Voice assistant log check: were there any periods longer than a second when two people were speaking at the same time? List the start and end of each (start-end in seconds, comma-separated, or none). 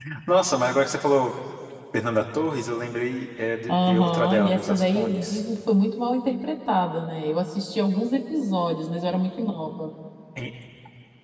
3.7-5.4